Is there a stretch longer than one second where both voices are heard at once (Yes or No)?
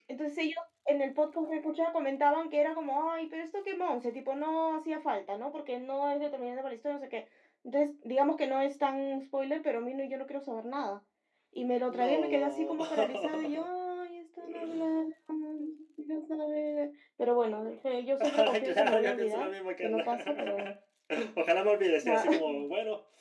Yes